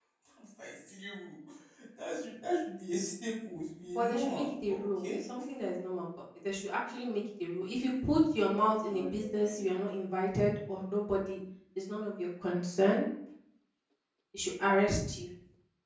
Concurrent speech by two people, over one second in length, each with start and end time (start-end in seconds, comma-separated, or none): 4.0-5.2